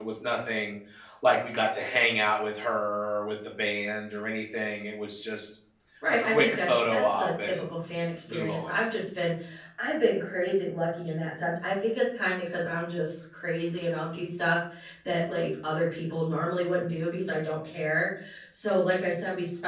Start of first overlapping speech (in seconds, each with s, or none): 6.1 s